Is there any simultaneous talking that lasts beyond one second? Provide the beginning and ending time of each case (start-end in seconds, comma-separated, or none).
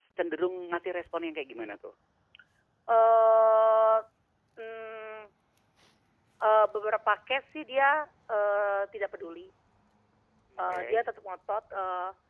none